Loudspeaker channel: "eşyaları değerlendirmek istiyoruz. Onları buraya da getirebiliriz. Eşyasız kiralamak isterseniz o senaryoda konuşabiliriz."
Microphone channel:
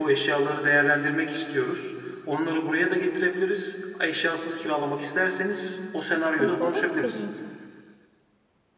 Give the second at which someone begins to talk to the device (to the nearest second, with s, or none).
6 s